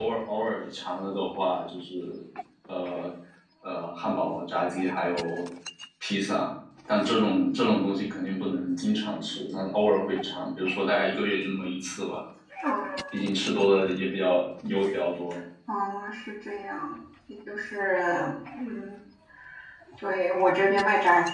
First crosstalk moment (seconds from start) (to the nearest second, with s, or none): none